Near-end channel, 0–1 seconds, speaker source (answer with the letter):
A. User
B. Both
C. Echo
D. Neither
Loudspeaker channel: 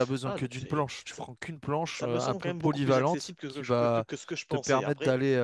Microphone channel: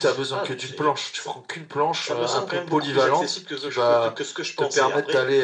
C